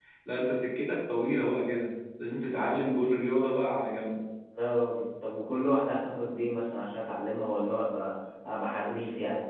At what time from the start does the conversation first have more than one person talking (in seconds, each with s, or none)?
none